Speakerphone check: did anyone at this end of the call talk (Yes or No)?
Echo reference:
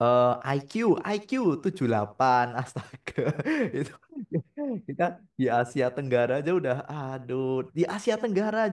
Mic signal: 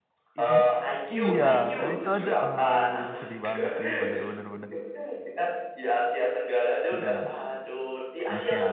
Yes